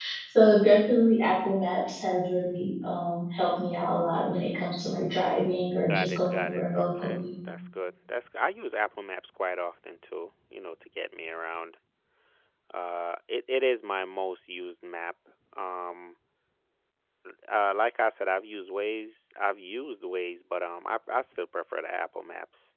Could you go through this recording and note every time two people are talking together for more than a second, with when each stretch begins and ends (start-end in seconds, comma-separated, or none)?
5.9-7.2